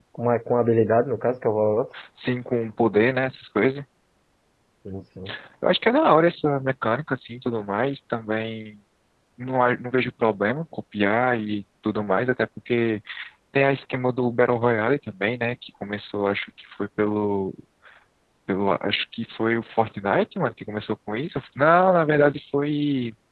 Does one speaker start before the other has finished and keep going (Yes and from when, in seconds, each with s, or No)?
No